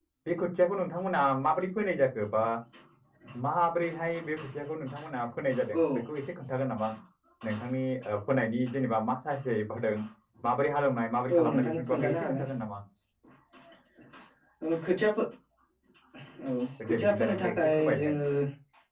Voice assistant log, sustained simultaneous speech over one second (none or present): present